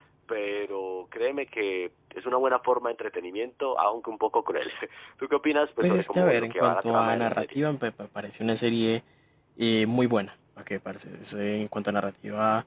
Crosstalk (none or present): present